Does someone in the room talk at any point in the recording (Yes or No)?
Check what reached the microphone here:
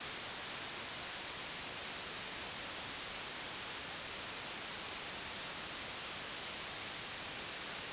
No